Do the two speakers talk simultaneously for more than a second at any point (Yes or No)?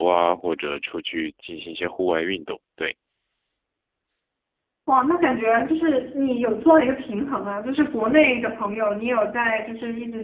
No